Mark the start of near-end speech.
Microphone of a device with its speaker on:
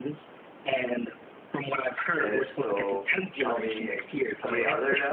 2 s

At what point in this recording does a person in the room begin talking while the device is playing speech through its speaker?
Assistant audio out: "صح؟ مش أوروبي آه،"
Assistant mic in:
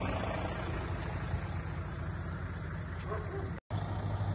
none

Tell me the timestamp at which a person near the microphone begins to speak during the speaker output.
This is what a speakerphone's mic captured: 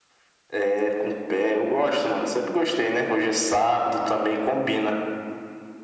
none

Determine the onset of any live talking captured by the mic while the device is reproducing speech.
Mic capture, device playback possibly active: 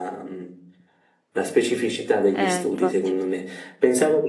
2 s

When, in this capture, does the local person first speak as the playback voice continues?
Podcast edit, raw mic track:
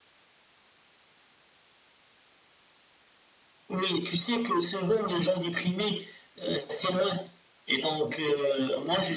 none

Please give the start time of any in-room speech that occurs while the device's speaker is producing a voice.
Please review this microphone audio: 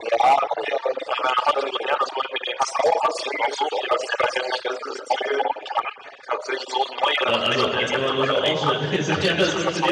7 s

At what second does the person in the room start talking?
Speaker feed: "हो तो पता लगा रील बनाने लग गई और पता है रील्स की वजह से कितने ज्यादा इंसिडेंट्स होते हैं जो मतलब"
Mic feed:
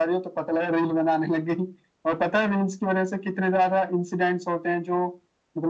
none

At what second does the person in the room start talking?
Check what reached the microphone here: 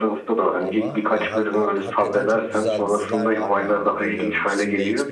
1 s

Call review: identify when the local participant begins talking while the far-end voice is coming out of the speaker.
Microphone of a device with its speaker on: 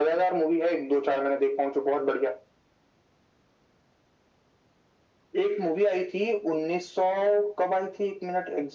none

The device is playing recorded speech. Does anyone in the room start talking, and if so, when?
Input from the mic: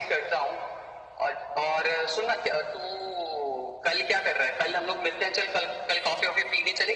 none

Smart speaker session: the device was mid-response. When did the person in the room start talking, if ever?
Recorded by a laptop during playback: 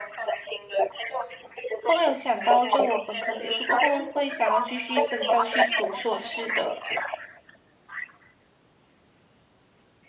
2 s

